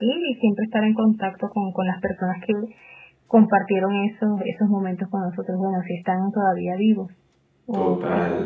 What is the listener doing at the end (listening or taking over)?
taking over